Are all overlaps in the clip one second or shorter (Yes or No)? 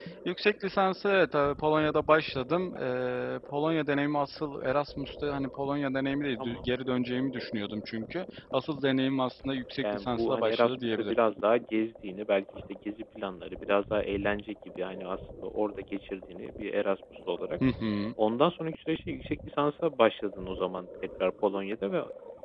No